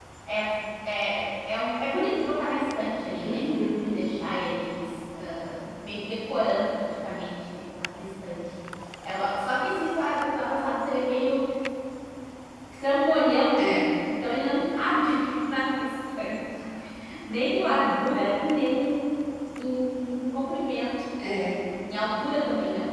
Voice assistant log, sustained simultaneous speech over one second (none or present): none